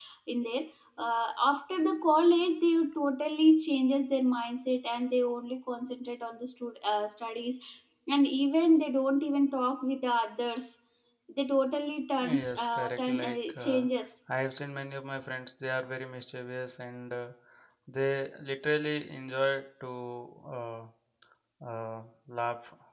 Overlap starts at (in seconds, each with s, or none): 12.2 s